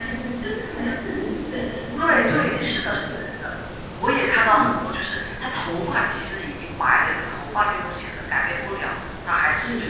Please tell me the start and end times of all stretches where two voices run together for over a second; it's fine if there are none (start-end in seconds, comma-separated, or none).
2.0-3.3